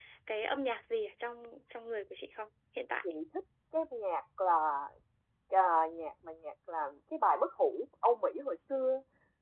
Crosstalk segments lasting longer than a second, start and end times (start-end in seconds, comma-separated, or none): none